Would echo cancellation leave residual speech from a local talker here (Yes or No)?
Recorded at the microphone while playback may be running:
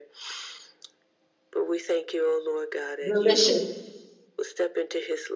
Yes